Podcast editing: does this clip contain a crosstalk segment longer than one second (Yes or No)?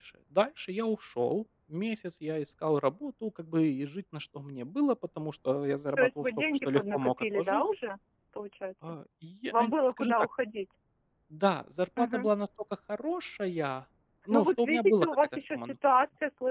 Yes